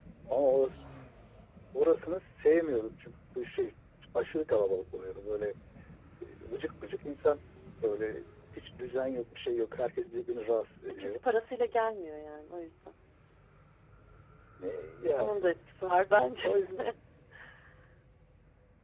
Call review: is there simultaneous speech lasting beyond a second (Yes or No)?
No